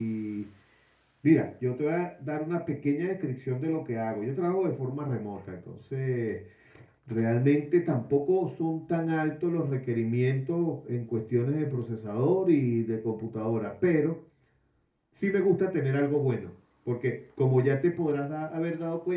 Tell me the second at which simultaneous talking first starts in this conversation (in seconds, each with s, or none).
none